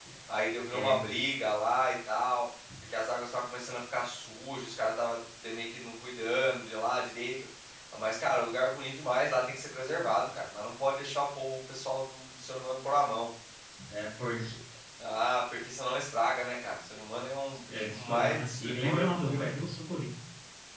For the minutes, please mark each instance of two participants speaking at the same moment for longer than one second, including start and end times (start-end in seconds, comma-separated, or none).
17.7-19.5